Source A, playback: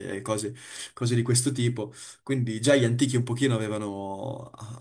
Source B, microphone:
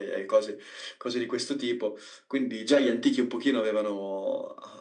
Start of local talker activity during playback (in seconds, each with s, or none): none